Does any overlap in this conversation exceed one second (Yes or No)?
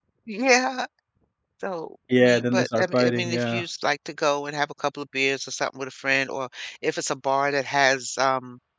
Yes